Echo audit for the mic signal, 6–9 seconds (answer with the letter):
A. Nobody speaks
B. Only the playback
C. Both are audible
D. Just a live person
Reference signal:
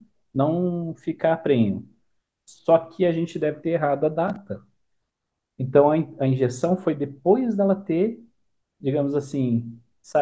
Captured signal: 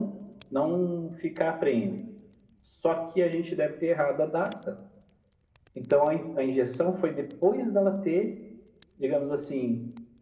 B